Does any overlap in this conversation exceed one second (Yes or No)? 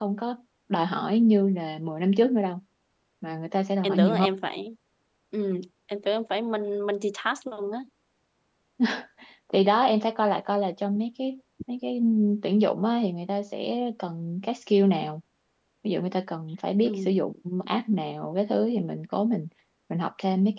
No